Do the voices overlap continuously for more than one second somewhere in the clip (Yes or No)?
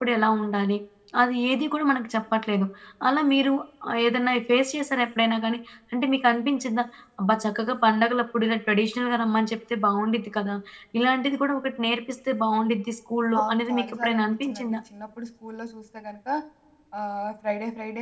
Yes